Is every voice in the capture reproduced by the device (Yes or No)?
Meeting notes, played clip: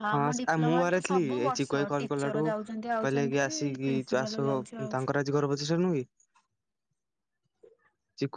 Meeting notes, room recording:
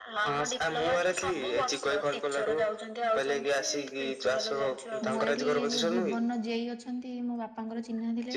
No